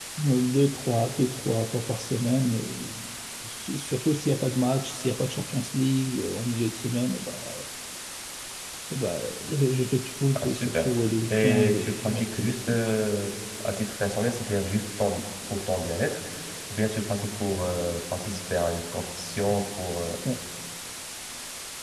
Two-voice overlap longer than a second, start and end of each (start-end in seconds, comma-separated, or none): 11.3-12.8